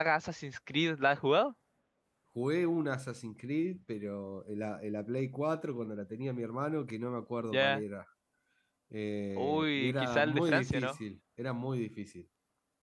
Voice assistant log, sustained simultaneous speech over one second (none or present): present